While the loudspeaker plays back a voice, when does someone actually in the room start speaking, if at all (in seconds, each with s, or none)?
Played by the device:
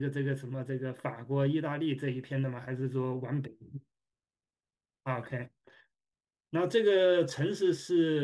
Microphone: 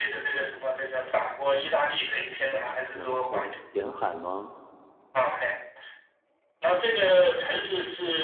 2.9 s